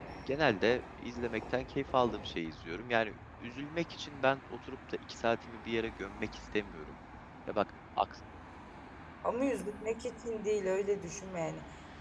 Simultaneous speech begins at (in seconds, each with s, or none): none